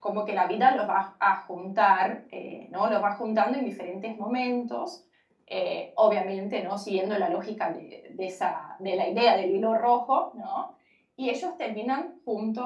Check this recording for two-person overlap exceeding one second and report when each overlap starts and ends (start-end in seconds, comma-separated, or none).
none